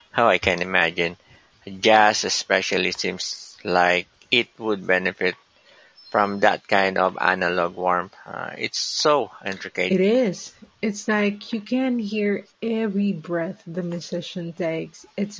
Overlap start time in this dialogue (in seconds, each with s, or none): none